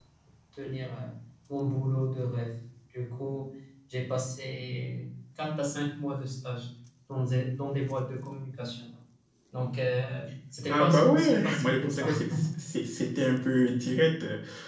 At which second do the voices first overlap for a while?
11 s

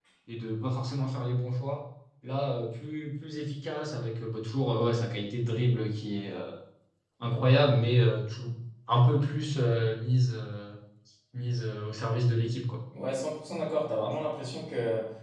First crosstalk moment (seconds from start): none

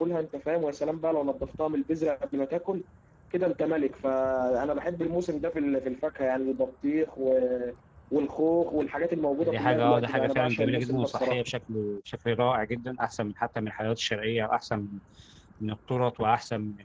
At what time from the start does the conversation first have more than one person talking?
9 s

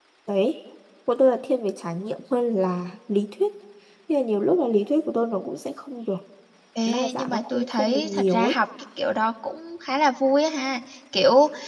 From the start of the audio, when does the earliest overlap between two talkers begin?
7 s

